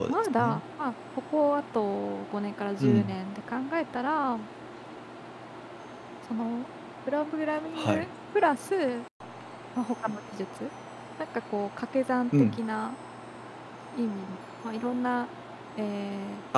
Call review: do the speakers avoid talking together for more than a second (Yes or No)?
Yes